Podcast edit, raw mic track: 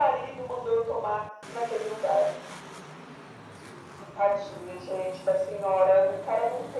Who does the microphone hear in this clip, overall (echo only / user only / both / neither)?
echo only